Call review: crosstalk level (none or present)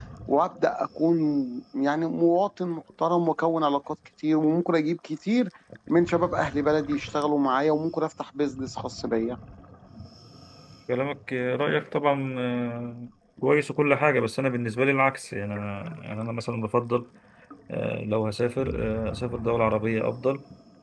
none